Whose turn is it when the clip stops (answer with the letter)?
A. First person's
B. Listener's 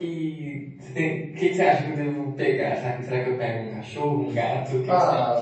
B